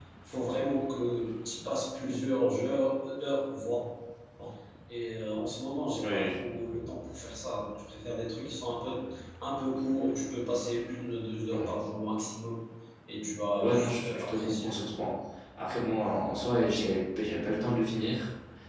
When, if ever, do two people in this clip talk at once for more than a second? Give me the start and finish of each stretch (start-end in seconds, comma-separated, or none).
13.6-14.9